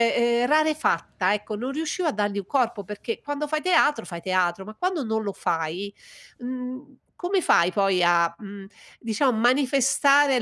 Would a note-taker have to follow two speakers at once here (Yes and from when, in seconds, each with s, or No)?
No